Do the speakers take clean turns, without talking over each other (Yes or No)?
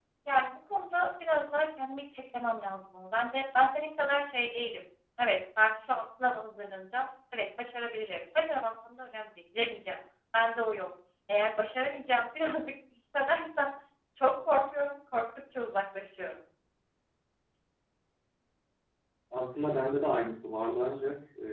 Yes